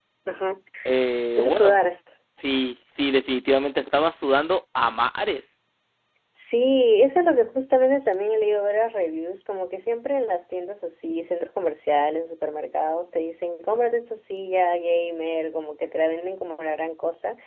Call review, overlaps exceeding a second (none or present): none